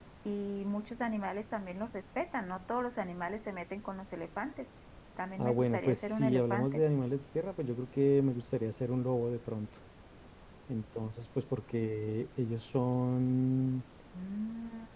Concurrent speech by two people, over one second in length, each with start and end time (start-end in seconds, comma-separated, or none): 5.4-6.8